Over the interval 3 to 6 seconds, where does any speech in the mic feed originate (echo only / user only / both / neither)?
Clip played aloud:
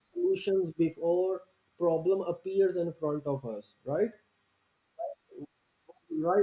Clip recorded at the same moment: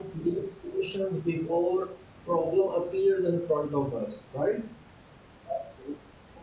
echo only